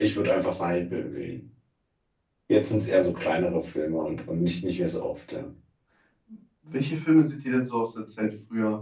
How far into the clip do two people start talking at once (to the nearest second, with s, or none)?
none